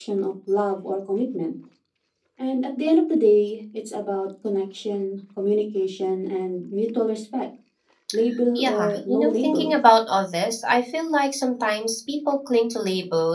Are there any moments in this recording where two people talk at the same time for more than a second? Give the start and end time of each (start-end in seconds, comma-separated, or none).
8.5-9.8